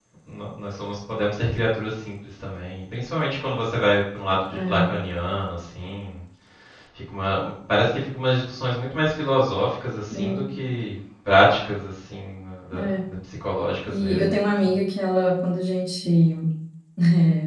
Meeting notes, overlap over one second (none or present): none